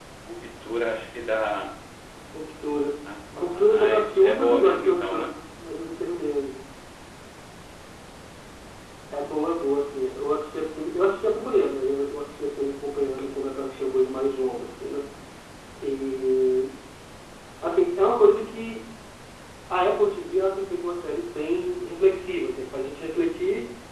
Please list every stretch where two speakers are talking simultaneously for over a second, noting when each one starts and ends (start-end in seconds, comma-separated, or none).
3.4-5.2